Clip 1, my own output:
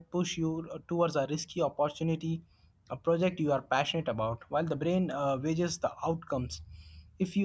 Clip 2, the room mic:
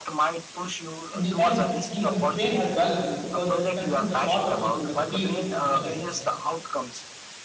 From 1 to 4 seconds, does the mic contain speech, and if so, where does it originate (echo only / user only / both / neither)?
both